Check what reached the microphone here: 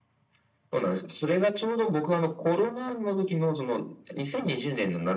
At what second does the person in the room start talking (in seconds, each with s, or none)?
none